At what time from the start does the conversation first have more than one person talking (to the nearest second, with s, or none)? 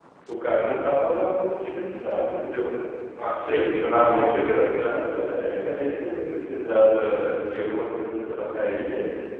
3 s